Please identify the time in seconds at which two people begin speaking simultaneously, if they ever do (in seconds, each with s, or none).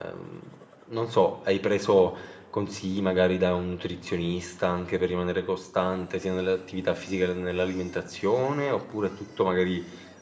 none